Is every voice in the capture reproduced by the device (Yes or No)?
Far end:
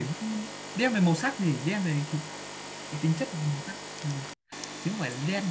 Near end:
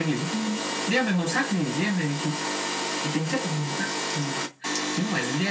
Yes